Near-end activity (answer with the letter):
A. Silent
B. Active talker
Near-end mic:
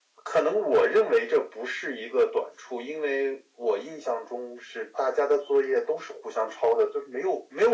A